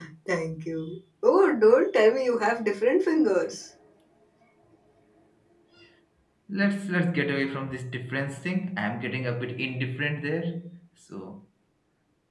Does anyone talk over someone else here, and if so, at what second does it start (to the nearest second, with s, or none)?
none